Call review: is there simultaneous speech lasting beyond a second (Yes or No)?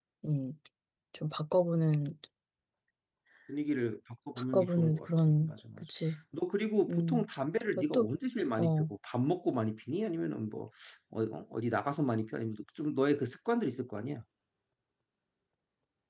Yes